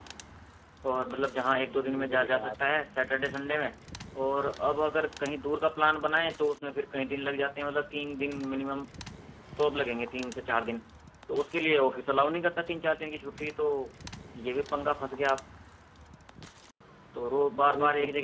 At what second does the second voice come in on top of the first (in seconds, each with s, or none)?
1.5 s